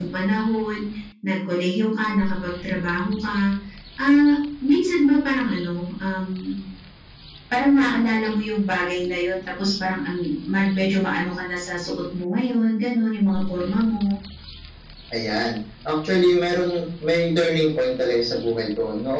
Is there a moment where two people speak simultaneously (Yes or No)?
No